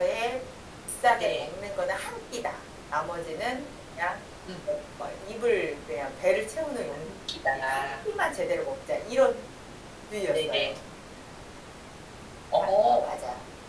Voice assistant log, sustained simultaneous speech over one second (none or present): none